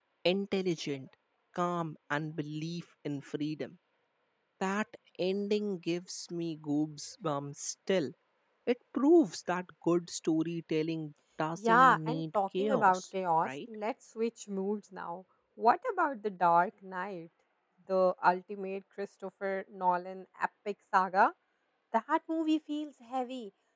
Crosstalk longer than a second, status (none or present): present